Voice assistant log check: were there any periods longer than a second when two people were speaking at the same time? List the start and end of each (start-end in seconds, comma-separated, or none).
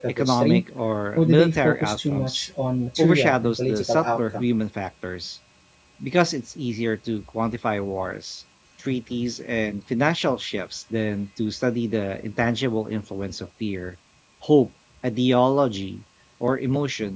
1.2-2.5, 3.0-4.5